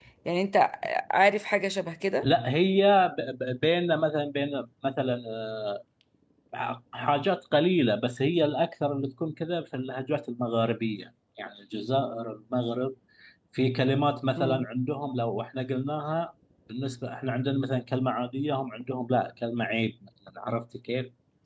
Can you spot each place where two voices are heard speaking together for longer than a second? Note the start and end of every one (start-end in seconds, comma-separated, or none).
none